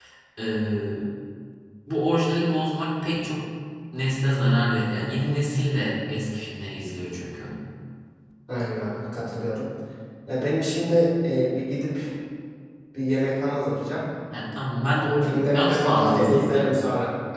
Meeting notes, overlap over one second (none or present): present